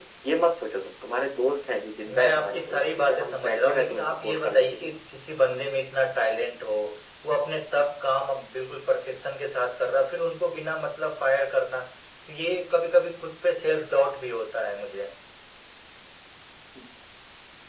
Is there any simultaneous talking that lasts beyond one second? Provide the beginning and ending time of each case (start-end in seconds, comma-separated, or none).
2.1-4.9